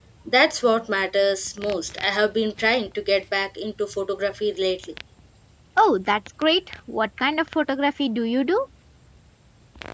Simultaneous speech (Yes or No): No